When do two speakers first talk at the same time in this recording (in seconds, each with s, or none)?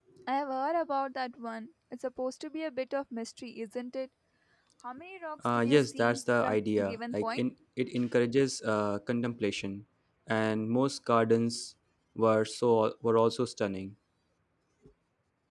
5.6 s